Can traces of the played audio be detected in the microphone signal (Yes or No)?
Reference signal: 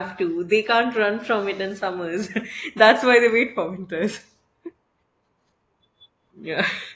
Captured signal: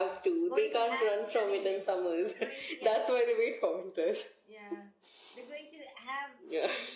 Yes